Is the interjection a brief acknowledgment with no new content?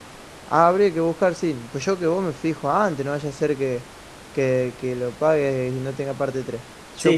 Yes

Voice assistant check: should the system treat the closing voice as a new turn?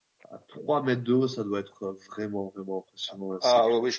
Yes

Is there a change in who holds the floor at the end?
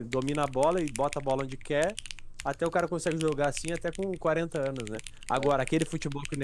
No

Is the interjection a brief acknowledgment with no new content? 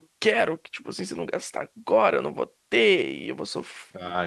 Yes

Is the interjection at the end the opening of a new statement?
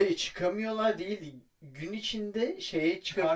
No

